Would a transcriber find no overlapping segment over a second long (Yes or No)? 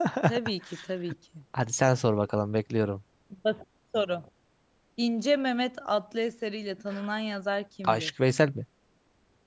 Yes